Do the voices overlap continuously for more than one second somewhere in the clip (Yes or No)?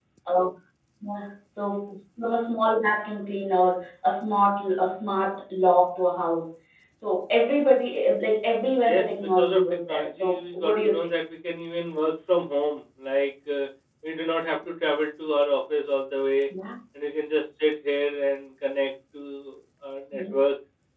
Yes